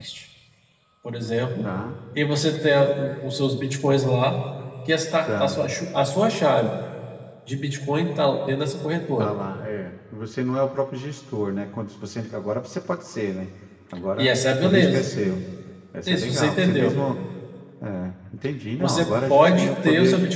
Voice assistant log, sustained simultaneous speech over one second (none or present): present